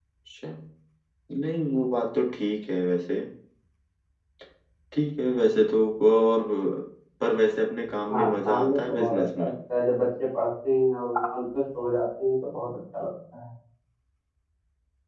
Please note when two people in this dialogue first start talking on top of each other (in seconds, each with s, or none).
8.1 s